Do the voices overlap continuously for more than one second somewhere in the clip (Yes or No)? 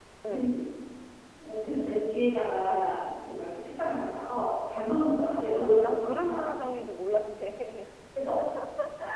Yes